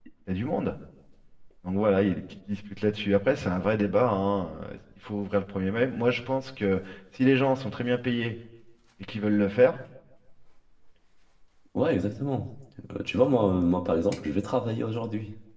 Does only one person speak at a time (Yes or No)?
Yes